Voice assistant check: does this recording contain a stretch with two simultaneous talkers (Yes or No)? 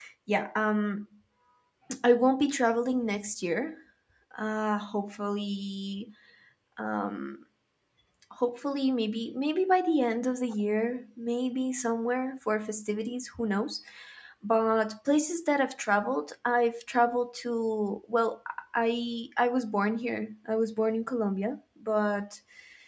No